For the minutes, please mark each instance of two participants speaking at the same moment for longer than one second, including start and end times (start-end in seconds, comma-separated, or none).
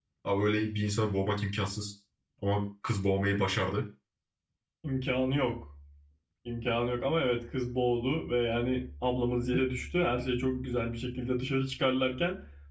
none